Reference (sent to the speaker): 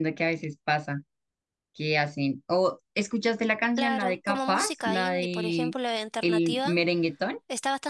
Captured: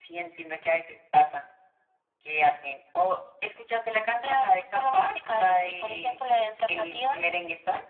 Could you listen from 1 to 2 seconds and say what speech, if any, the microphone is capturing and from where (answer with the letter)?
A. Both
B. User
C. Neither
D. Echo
D